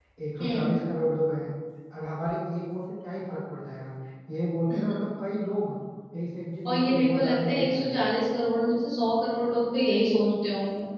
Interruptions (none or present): present